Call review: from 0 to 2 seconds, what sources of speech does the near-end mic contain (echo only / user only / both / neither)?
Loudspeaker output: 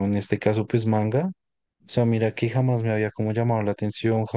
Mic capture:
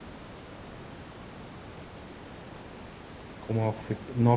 neither